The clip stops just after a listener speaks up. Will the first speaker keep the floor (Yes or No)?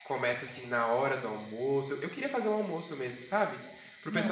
Yes